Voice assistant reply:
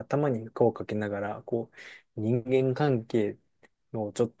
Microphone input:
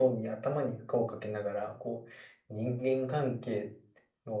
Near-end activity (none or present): none